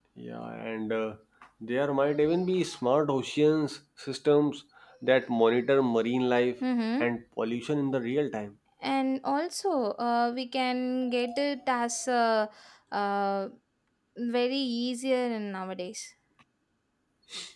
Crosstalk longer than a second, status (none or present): none